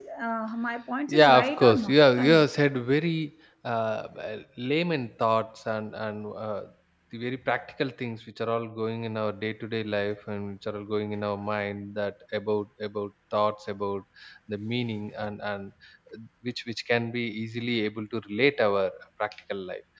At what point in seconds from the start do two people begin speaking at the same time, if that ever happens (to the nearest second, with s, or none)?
1 s